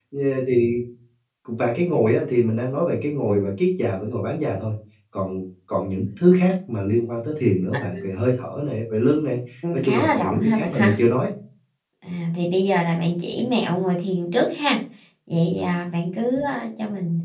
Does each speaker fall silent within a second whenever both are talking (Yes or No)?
No